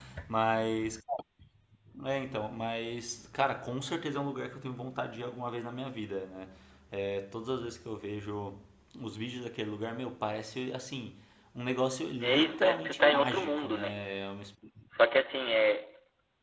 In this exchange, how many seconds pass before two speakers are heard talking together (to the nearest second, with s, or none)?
12 s